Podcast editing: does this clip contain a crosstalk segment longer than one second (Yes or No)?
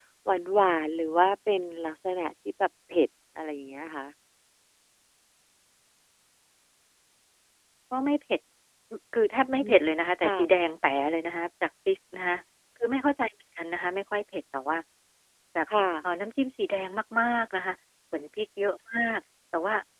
No